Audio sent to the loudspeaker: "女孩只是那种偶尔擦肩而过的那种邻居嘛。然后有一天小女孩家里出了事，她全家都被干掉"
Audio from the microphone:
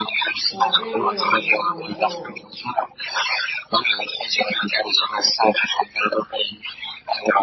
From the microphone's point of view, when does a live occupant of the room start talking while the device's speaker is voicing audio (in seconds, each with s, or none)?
0.5 s